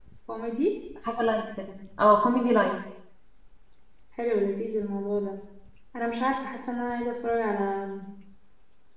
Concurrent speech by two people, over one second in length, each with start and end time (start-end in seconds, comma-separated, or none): none